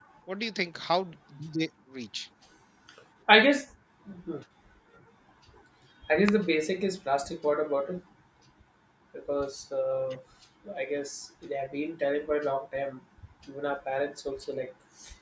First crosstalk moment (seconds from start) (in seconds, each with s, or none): none